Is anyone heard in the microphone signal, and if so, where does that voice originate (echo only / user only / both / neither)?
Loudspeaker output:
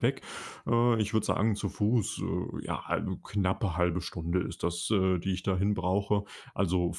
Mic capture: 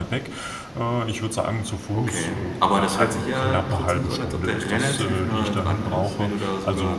both